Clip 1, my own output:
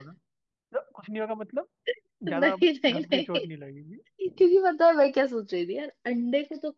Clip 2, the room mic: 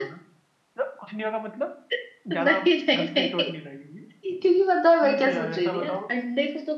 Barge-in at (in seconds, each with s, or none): 5.0 s